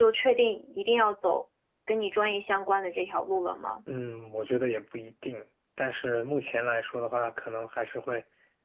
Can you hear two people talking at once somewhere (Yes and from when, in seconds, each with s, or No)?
No